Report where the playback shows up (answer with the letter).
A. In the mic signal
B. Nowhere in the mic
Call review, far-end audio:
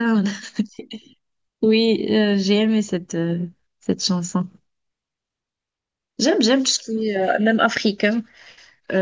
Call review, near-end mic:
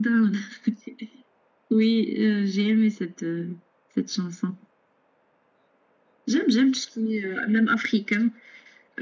A